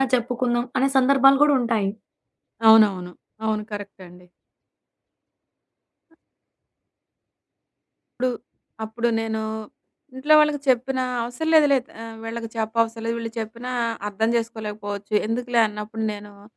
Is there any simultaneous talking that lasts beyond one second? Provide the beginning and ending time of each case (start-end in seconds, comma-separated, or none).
none